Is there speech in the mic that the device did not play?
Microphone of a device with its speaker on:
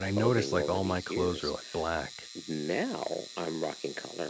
Yes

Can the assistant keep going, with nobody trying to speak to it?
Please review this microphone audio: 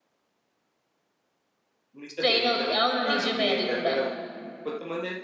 No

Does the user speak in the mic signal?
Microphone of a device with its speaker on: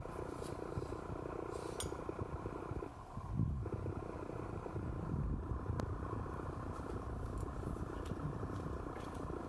No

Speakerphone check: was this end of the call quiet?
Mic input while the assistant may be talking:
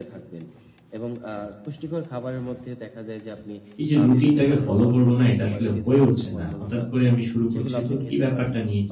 No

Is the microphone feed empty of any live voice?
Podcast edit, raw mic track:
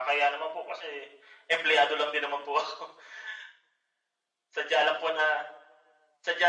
Yes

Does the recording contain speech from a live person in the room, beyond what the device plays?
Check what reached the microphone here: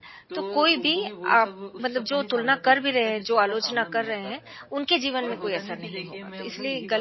Yes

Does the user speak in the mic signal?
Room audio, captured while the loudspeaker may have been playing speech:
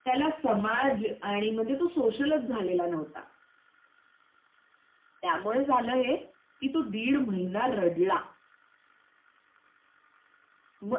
No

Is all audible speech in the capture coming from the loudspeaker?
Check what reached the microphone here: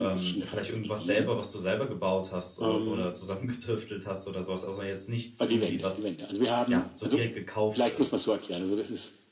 No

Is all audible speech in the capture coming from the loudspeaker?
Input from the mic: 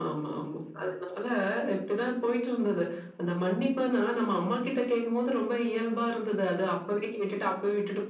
Yes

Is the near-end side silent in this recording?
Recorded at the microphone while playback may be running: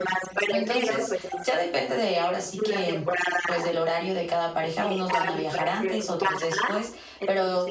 No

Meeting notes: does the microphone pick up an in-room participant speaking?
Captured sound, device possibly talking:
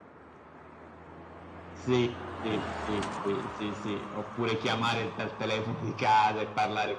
No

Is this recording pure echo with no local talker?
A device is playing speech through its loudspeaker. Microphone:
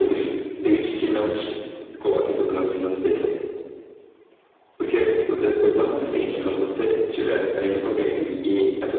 Yes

